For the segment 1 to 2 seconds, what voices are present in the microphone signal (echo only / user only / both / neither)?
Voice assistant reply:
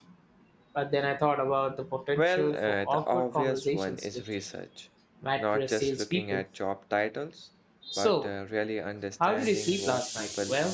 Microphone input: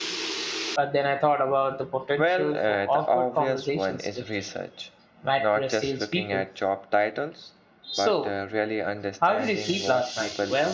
echo only